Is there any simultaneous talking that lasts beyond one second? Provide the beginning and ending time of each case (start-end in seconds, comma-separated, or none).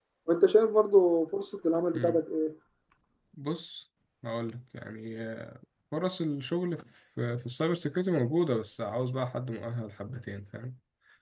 none